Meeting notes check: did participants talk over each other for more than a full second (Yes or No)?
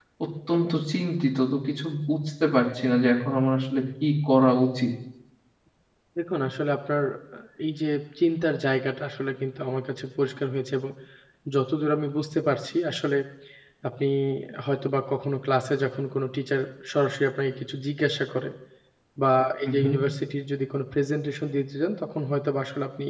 No